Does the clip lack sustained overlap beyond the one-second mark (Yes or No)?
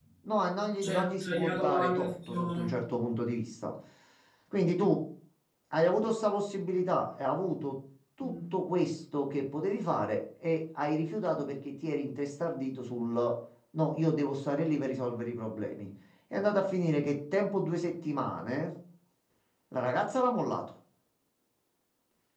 No